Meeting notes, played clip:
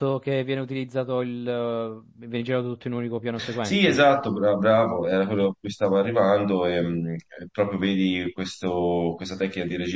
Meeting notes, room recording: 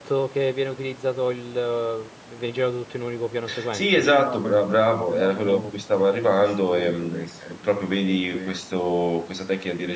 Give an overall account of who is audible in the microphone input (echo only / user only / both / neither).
both